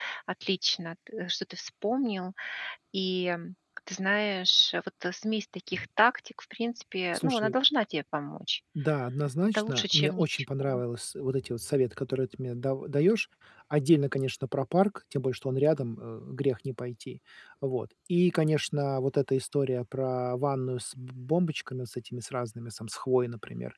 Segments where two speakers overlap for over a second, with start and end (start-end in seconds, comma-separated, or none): 9.5-10.8